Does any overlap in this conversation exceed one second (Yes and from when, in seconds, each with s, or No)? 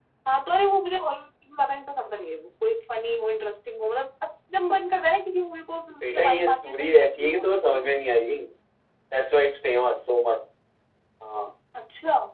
Yes, from 6.0 s